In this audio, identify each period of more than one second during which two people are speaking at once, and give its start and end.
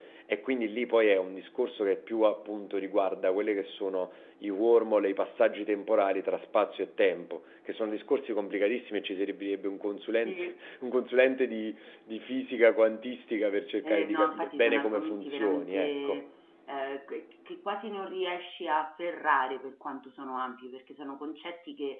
13.8-16.2

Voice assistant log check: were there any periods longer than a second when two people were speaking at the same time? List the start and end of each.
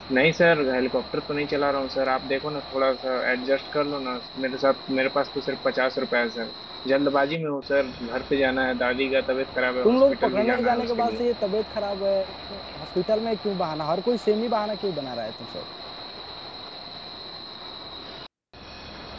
9.8-11.2

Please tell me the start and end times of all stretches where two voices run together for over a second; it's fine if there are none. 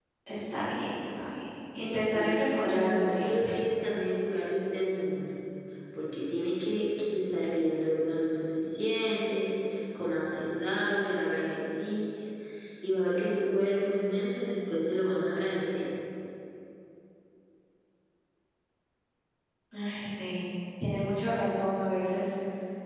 2.0-3.5

